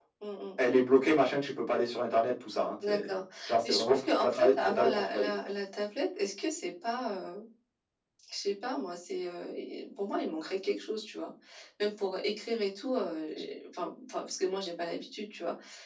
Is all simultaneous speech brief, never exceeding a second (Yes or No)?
No